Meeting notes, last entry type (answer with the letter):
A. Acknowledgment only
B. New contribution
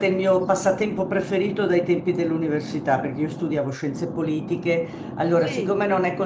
A